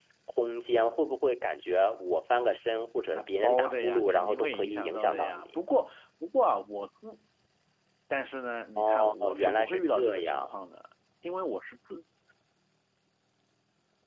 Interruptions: present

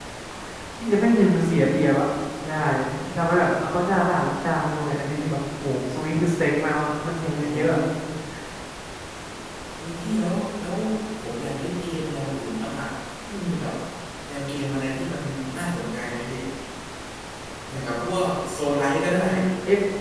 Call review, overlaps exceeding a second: none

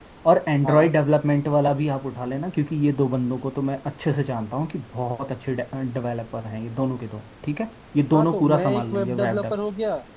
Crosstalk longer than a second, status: present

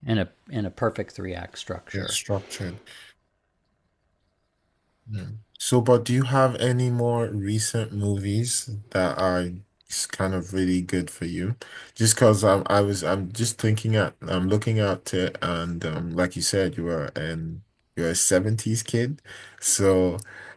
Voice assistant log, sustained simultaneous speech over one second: none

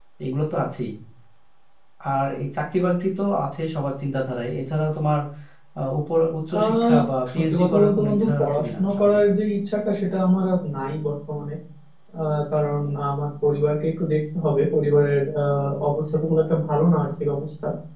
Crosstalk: present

